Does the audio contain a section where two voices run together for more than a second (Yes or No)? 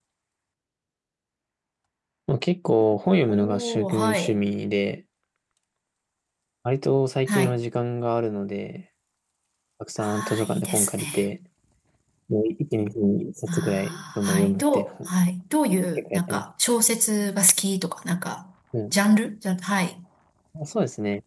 Yes